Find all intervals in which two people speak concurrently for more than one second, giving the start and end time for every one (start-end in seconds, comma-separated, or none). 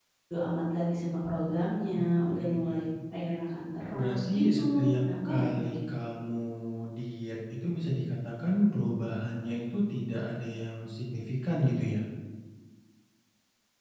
4.0-5.8